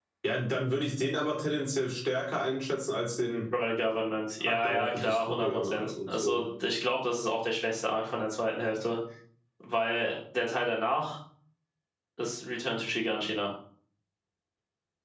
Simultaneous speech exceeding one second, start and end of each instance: 4.4-6.4

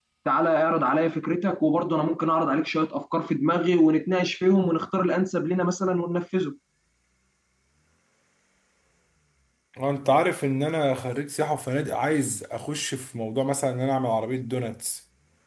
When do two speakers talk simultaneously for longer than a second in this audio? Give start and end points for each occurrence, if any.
none

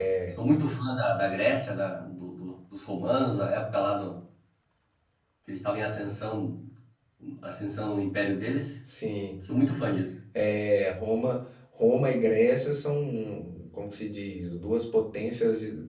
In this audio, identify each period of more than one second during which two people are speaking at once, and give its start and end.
none

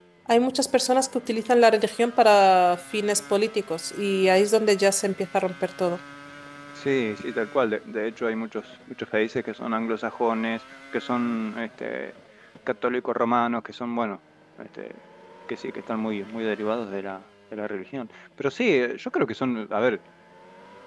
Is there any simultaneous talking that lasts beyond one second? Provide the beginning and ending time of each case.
none

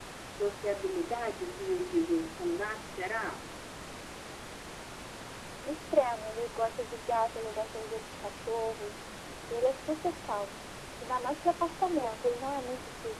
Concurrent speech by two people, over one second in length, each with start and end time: none

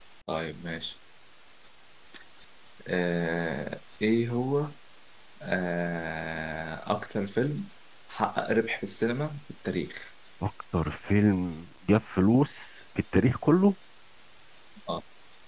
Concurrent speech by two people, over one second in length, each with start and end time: none

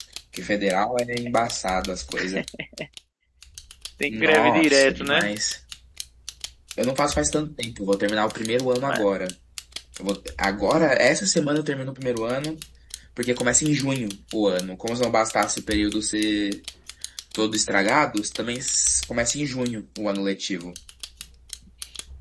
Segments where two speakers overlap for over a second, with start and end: 4.1-5.3

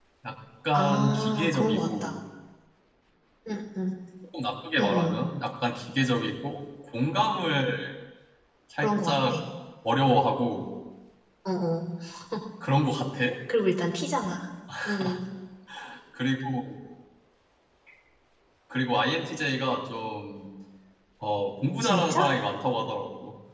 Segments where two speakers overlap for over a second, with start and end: 0.7-2.1

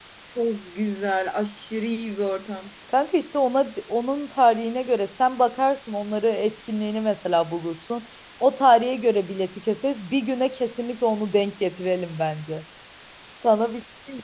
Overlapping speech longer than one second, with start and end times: none

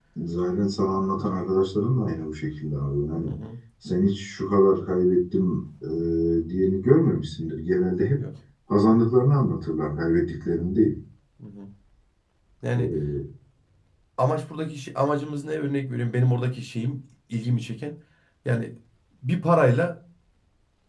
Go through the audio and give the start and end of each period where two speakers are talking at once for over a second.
none

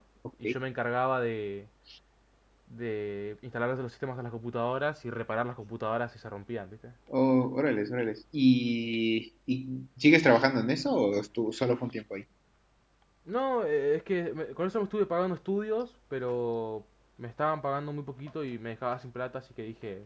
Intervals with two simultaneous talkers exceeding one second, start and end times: none

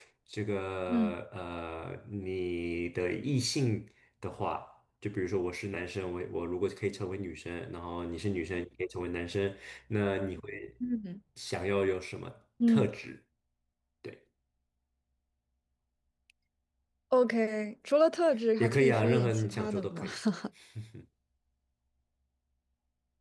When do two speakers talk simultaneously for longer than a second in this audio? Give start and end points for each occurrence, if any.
18.6-20.1

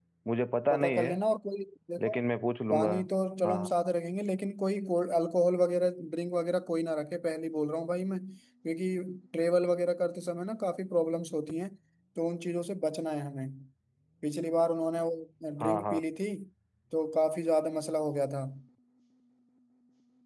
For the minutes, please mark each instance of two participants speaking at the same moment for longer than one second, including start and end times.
none

